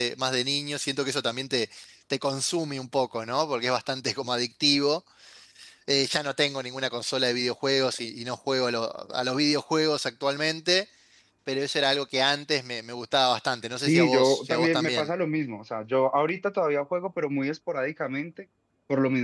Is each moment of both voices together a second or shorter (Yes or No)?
No